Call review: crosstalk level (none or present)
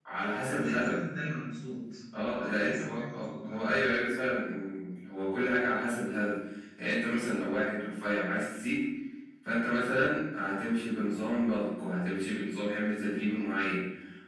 present